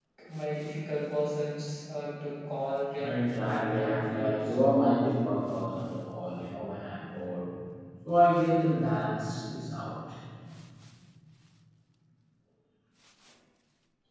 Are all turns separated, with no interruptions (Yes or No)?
No